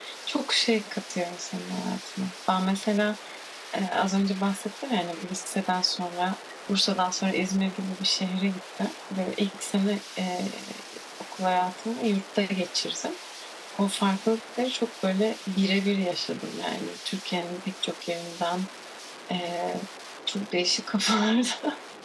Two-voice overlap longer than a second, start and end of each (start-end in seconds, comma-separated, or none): none